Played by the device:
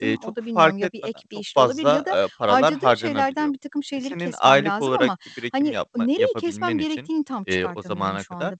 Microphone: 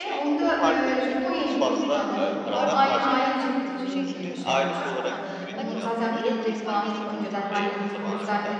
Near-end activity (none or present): present